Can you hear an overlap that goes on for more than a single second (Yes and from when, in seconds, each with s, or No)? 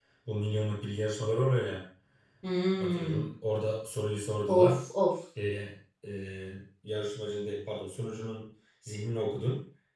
No